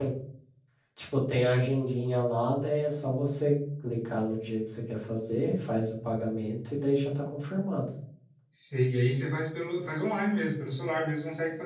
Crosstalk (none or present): none